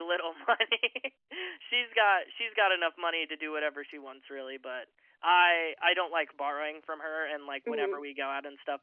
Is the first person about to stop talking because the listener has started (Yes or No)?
No